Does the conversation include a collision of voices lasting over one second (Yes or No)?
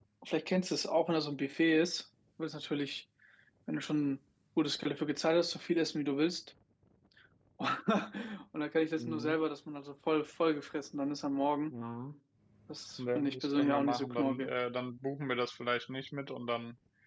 Yes